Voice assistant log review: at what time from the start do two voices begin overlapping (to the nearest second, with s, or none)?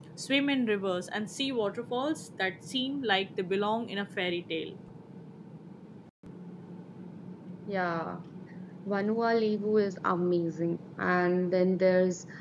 none